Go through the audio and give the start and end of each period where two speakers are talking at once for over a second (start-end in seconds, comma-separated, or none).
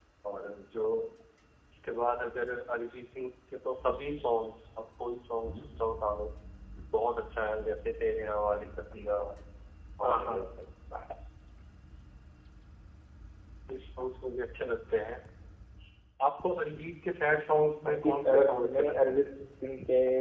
17.9-19.2